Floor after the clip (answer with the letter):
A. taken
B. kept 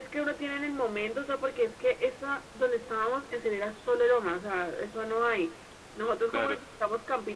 B